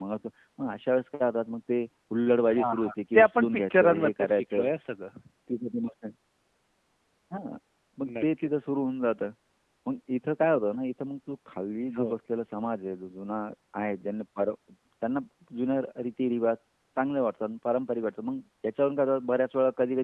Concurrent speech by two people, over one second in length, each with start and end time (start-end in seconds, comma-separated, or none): 2.6-4.7